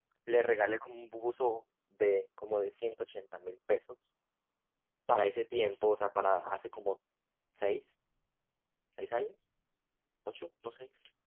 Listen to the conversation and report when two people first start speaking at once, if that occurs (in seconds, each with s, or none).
none